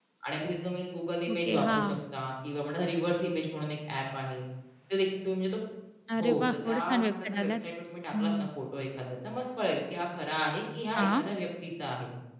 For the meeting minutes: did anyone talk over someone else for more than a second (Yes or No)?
Yes